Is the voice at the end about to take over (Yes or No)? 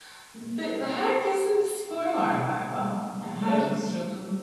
No